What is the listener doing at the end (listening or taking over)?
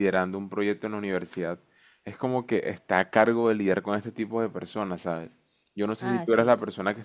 listening